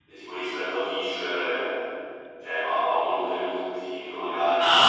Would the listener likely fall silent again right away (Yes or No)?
No